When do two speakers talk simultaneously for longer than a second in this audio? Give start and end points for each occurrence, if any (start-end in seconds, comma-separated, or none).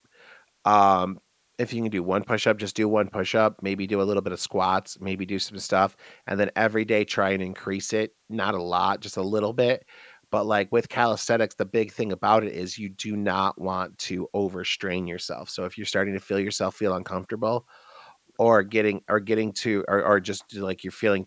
none